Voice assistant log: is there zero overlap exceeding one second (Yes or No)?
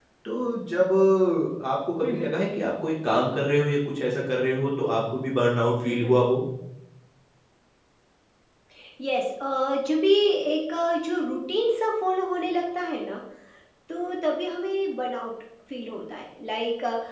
Yes